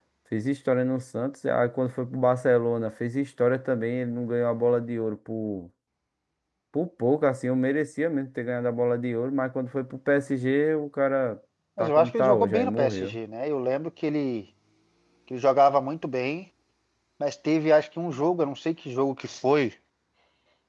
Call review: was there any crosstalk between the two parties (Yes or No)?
Yes